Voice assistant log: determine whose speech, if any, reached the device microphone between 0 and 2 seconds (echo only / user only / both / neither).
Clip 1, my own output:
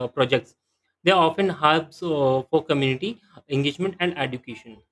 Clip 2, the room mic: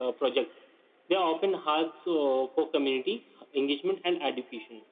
echo only